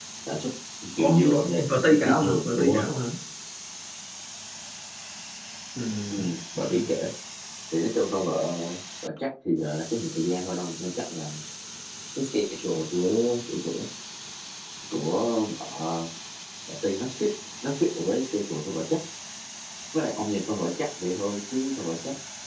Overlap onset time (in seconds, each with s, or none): 1.0 s